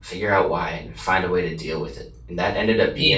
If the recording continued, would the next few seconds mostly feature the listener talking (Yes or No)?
No